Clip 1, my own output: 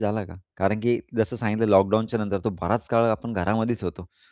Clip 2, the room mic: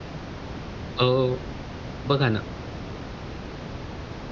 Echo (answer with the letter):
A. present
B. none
B